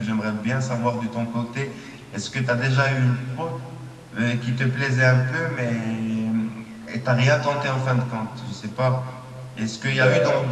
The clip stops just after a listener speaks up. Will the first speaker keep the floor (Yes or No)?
Yes